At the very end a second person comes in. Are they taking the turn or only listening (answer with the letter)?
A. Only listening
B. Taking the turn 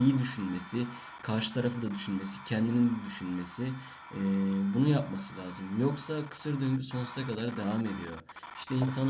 A